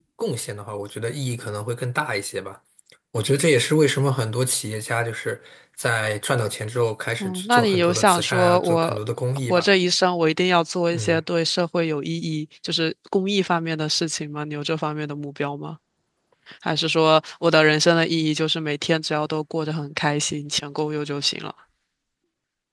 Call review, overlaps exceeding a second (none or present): present